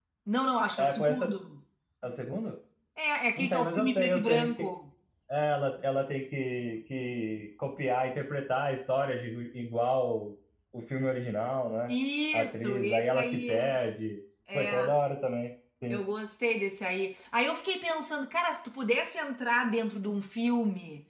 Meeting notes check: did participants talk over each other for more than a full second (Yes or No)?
Yes